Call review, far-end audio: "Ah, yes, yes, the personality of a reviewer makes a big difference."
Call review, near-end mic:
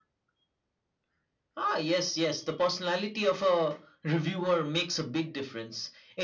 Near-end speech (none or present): none